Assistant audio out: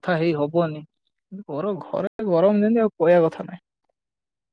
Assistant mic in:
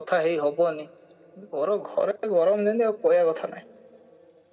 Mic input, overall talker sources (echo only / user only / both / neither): echo only